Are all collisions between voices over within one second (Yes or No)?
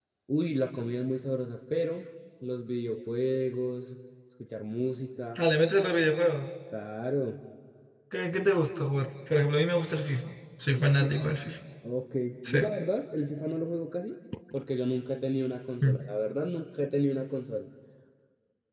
Yes